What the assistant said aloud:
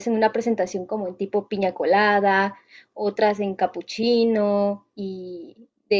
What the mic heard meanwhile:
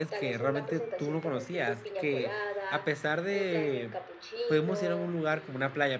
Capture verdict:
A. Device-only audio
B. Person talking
B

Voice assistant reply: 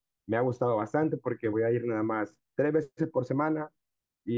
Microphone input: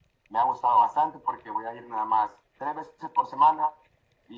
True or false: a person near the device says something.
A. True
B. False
B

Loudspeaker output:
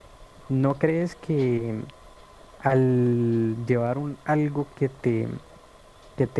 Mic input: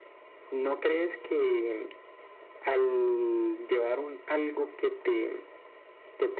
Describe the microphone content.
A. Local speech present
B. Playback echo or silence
B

